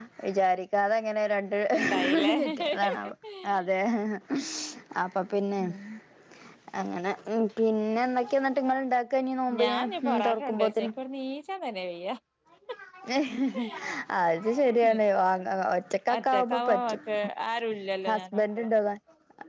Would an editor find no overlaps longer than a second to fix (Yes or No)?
No